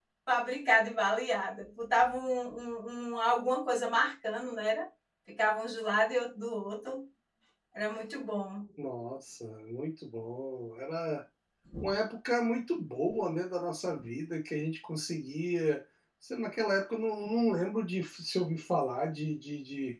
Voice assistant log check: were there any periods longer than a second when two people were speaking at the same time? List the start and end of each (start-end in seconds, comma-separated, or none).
none